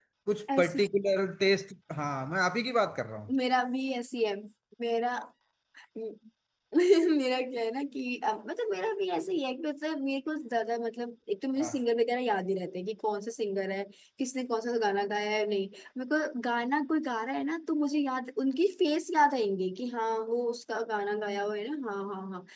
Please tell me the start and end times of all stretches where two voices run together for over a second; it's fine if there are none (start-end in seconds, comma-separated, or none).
none